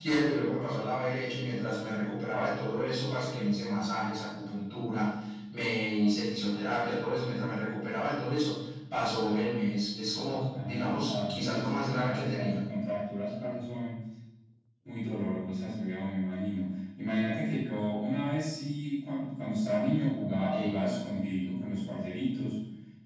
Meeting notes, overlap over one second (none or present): present